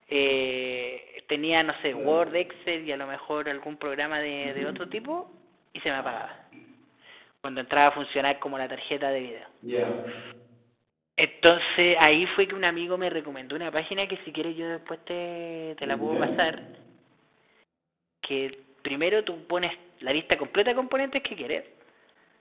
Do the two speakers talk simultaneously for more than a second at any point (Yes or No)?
No